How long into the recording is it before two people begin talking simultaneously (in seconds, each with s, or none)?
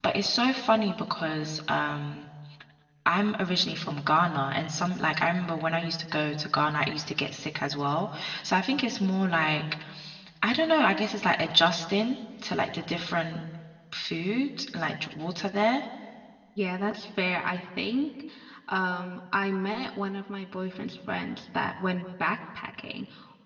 none